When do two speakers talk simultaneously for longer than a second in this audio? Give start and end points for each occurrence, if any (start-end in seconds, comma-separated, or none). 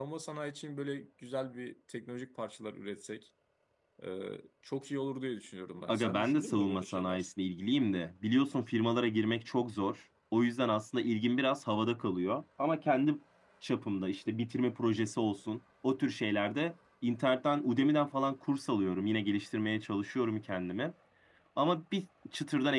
5.9-7.3